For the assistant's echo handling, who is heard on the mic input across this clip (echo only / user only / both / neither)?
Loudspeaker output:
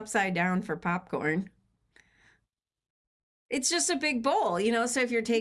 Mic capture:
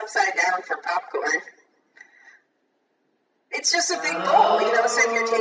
both